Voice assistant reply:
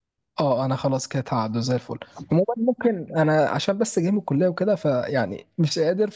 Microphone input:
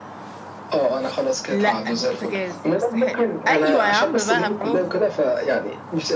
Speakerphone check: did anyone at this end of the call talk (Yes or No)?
Yes